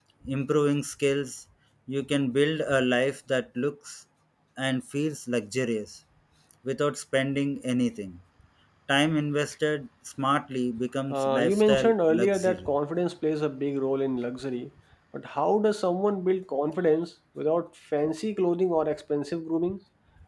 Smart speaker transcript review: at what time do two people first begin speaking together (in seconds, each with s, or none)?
11.1 s